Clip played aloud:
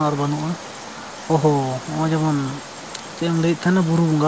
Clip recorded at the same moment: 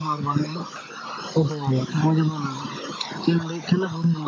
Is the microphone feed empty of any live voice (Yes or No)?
Yes